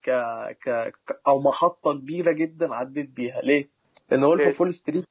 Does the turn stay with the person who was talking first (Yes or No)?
Yes